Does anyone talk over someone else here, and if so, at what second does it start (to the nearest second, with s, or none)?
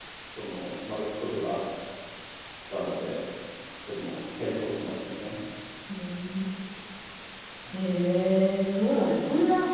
none